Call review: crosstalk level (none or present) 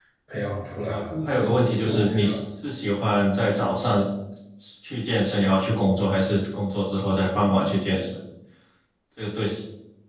present